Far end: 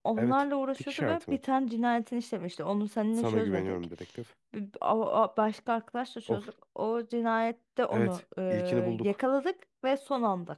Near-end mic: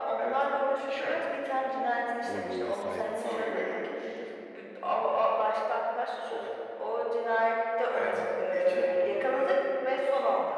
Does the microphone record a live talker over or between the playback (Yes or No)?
Yes